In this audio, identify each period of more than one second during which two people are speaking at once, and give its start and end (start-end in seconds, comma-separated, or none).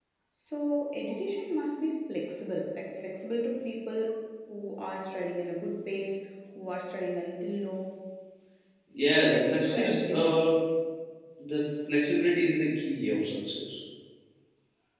9.2-10.4